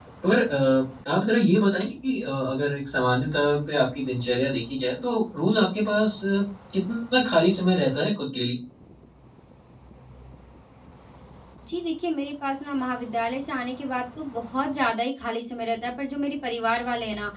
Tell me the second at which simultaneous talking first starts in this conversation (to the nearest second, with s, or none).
none